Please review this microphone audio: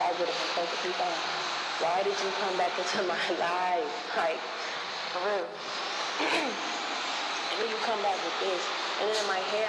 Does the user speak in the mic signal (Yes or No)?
No